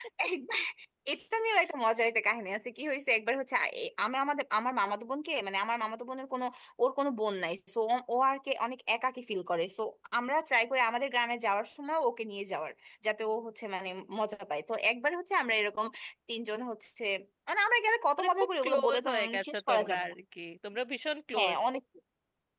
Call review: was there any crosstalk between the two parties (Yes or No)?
Yes